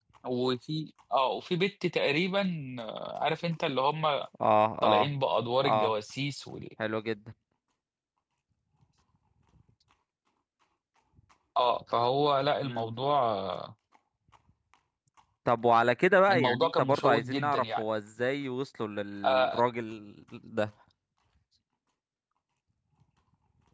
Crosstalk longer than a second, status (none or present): present